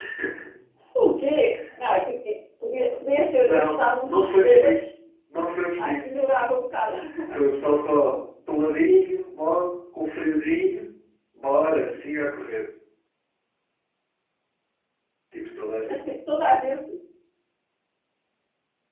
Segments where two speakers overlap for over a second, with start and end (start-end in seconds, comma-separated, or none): 3.4-4.9